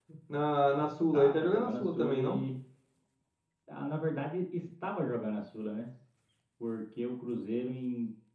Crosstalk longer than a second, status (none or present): present